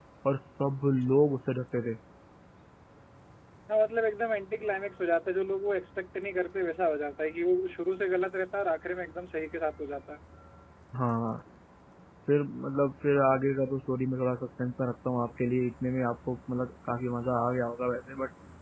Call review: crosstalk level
none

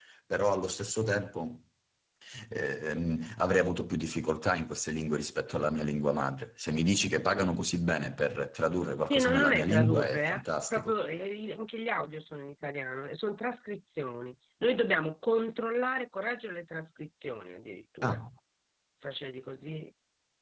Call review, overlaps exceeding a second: present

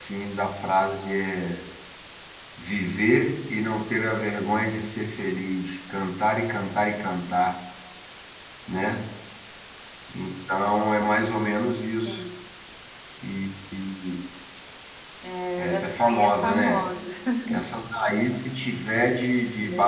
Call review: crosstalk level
present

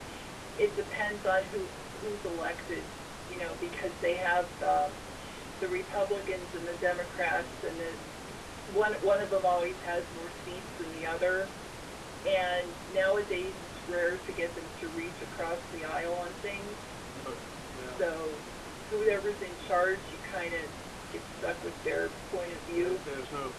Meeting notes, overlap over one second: none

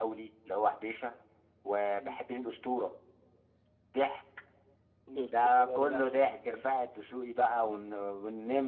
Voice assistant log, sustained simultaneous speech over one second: present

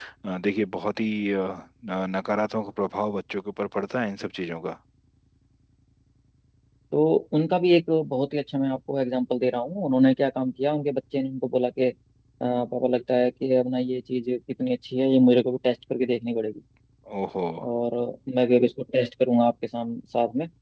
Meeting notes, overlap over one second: none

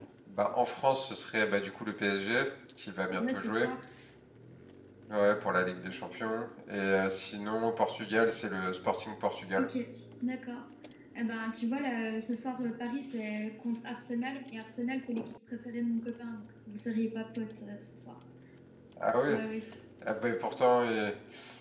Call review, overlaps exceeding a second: none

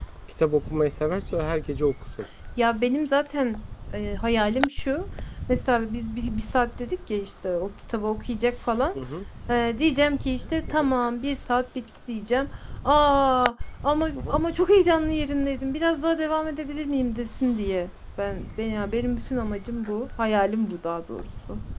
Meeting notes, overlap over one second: none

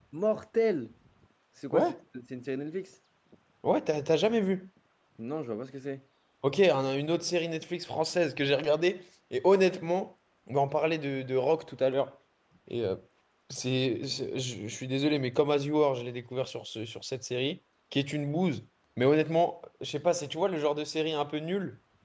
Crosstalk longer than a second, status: none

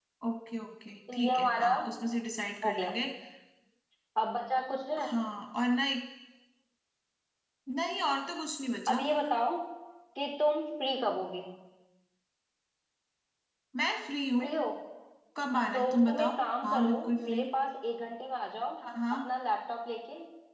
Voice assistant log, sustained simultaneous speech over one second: present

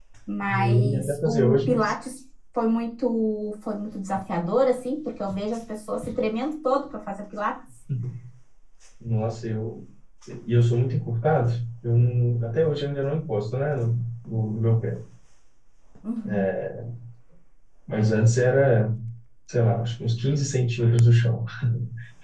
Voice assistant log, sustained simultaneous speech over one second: present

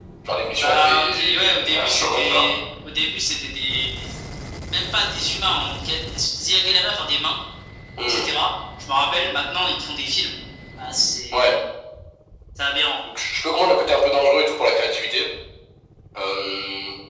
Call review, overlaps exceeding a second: present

